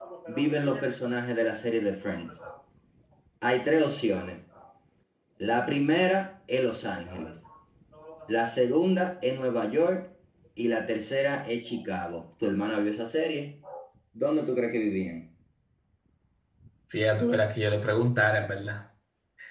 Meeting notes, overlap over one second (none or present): none